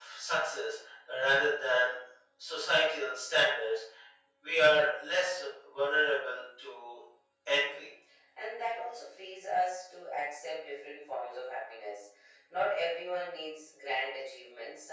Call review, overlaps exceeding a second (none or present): none